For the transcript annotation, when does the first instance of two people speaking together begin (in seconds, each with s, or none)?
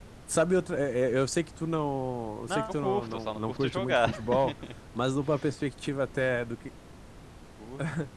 2.5 s